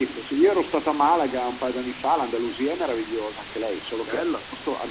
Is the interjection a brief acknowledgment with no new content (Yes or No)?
Yes